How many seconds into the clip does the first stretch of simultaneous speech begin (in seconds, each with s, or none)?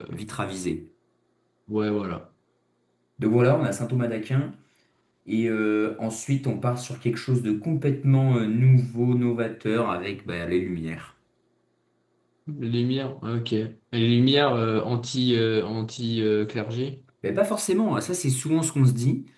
none